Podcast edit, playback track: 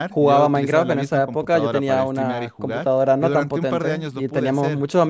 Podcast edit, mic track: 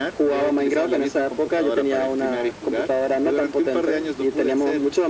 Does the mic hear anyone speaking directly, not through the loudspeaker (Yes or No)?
No